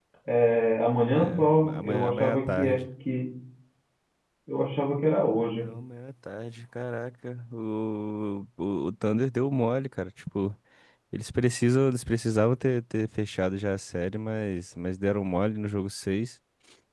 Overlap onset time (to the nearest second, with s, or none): 1 s